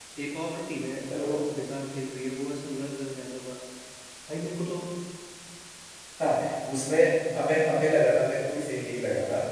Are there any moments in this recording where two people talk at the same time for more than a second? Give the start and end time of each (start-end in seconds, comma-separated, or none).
none